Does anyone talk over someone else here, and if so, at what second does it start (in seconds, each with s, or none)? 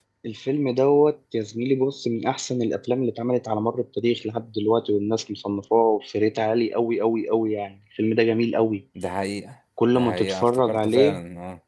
9.8 s